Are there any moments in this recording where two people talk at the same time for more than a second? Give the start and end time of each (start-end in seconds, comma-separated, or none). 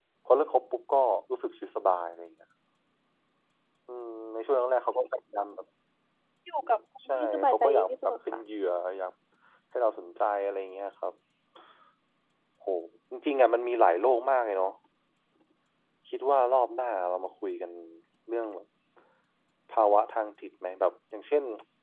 7.1-8.4